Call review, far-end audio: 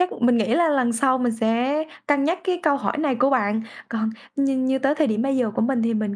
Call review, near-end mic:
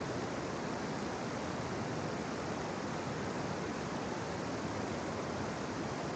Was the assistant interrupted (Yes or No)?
No